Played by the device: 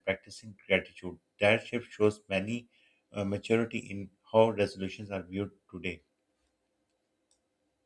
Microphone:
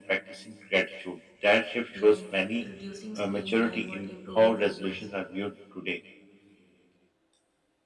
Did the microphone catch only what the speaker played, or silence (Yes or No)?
No